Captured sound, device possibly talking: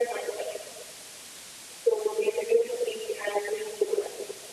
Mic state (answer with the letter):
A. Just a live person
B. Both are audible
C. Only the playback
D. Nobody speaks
C